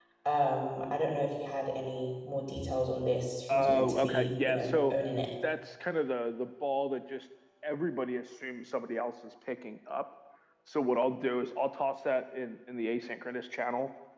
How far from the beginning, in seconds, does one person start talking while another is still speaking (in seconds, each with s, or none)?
3.5 s